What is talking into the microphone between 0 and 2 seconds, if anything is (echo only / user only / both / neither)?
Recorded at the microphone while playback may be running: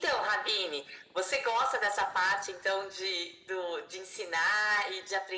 echo only